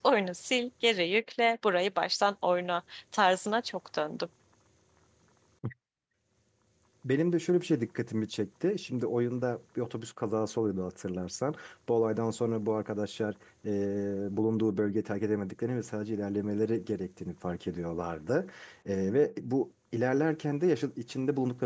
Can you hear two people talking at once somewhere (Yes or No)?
No